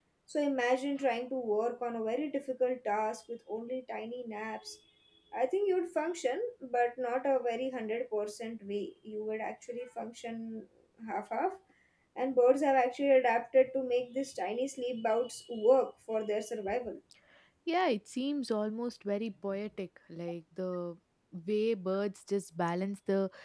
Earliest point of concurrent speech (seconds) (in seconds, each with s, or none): none